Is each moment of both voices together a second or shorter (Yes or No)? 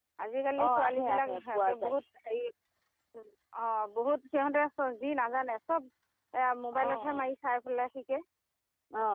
No